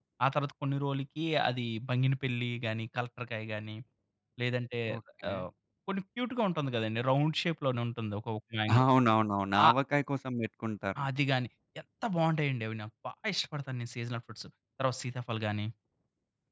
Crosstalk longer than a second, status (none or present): none